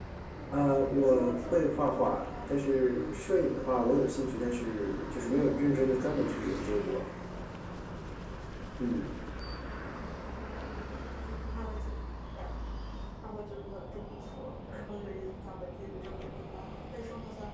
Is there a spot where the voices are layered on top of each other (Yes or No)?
Yes